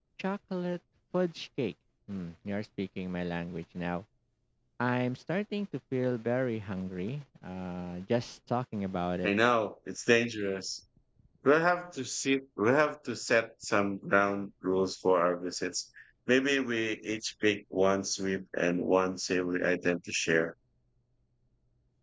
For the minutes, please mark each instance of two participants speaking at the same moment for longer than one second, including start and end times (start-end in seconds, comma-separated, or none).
none